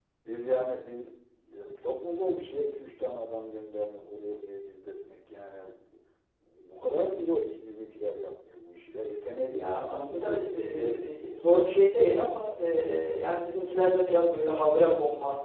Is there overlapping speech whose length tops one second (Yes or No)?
Yes